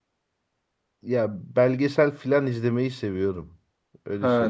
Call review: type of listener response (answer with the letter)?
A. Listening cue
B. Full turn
B